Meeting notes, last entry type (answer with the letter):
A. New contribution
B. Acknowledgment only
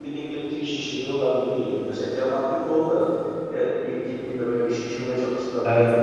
B